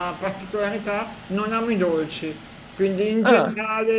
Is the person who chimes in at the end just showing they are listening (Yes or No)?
Yes